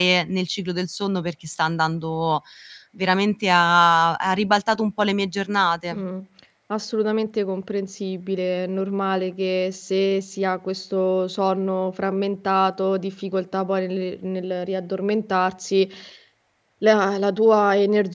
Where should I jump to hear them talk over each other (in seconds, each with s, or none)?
none